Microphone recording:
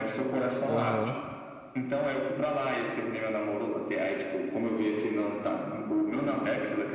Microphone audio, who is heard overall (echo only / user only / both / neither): both